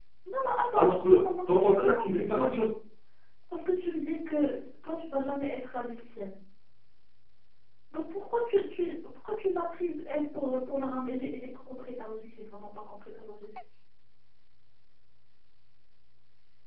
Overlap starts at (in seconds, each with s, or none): 0.8 s